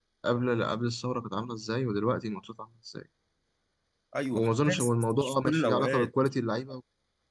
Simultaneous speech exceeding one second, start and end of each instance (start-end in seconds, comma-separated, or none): 4.3-6.1